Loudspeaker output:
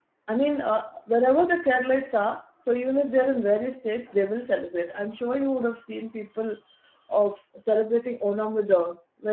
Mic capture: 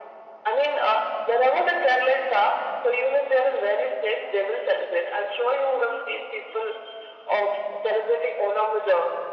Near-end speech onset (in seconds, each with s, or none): none